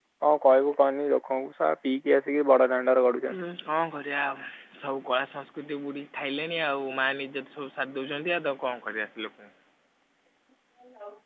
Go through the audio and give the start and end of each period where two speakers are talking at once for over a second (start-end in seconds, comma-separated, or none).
none